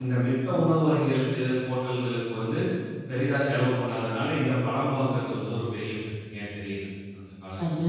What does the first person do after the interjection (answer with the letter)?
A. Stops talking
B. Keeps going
A